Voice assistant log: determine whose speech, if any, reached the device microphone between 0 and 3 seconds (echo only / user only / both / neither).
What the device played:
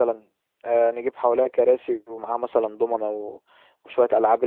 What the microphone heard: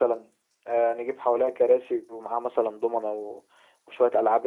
echo only